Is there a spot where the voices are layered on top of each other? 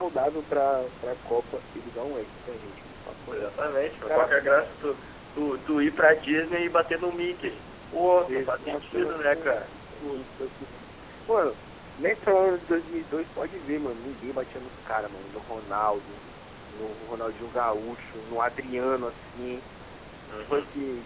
Yes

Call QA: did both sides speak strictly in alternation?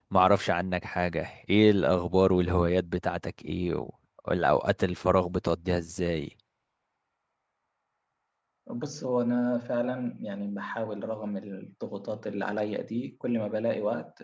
Yes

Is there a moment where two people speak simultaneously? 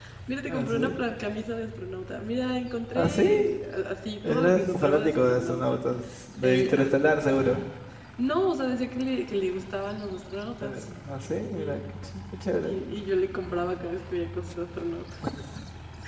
Yes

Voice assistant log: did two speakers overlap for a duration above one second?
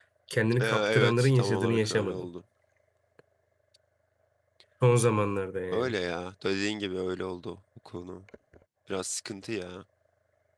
Yes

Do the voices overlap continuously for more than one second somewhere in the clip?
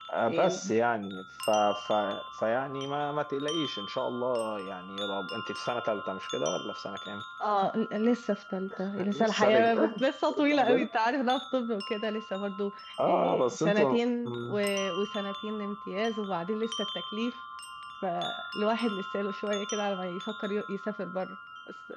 Yes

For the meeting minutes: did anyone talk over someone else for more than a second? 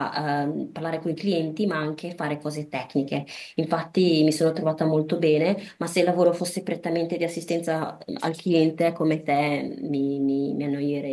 No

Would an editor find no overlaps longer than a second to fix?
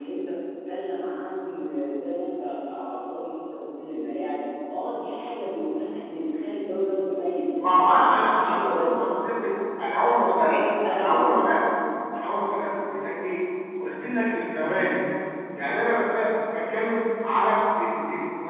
No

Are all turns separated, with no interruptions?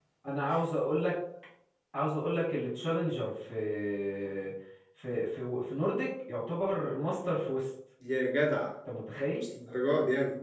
Yes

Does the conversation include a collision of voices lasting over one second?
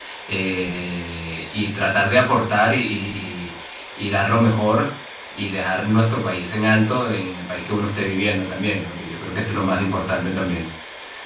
No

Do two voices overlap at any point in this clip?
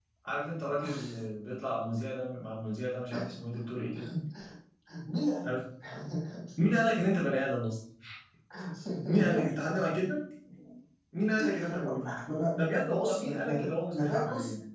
Yes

